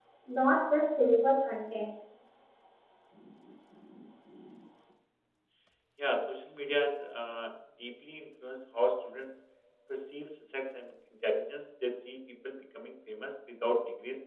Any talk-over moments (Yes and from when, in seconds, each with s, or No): No